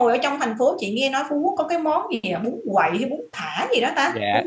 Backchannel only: No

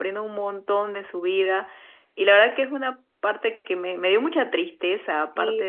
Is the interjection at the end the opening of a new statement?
Yes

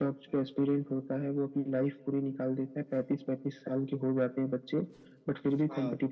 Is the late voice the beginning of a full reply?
No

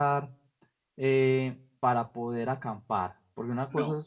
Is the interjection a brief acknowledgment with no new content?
Yes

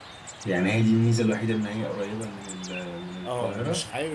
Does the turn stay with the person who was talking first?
No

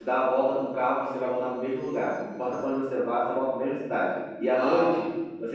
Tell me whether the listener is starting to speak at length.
No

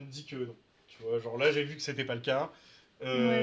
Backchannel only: No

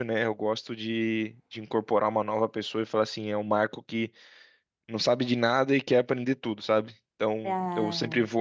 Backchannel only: Yes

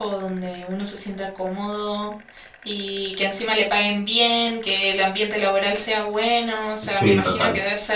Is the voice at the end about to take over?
No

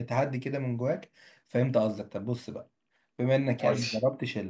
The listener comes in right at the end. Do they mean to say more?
No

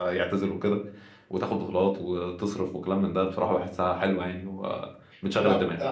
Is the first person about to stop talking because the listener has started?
Yes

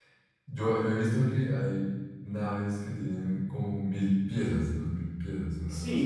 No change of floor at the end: No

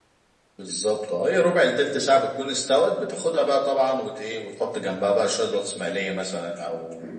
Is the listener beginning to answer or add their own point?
Yes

